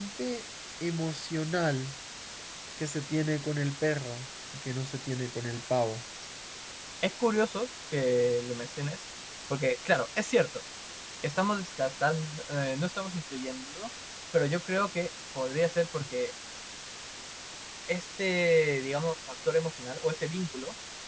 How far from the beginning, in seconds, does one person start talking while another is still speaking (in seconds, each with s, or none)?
none